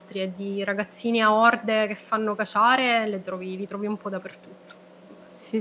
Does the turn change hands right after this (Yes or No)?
Yes